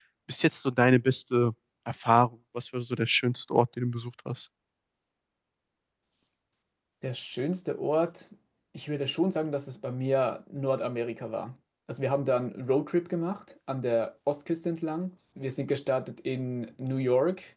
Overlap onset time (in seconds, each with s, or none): none